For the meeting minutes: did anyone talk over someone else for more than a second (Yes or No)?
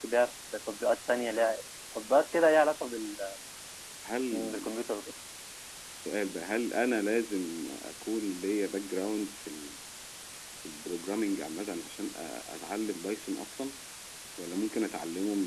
No